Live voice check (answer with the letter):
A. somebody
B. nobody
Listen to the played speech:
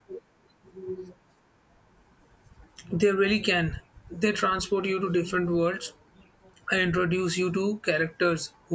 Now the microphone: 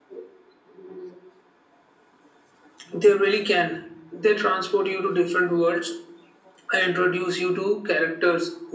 B